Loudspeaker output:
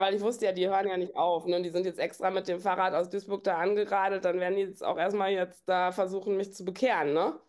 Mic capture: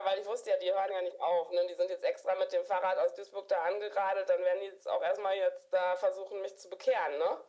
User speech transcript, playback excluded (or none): none